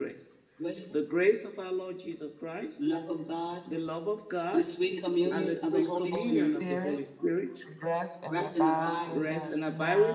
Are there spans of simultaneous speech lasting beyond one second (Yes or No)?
Yes